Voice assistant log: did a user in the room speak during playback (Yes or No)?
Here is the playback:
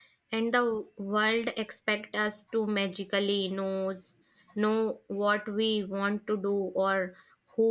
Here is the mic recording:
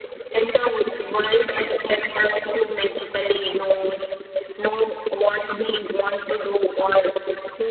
No